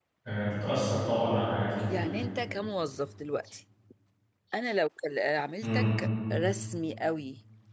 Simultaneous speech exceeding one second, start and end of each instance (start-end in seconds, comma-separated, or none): none